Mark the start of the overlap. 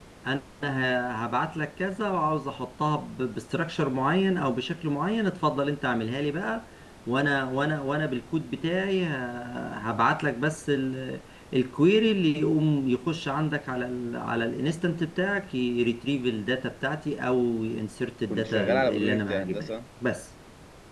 18.3 s

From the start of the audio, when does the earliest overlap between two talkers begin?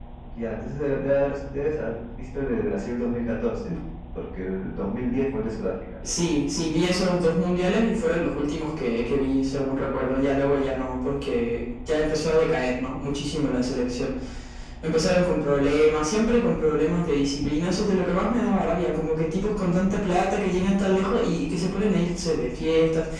none

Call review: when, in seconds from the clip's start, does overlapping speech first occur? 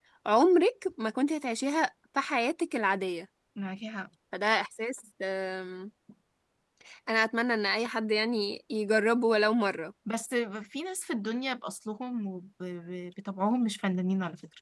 none

